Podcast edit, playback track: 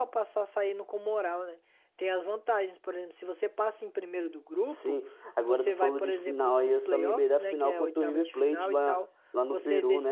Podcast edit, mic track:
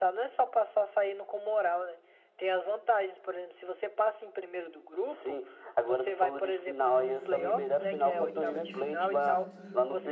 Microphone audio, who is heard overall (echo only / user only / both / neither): both